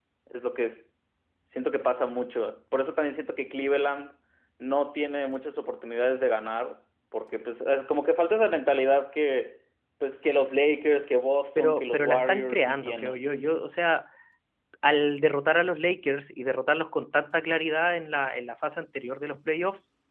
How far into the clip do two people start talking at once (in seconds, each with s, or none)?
11.6 s